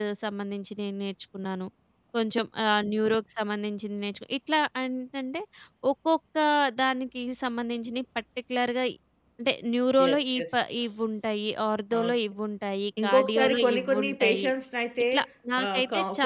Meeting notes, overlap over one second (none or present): present